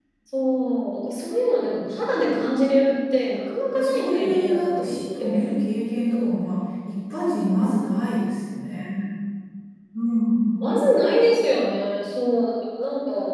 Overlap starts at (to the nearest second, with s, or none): 4 s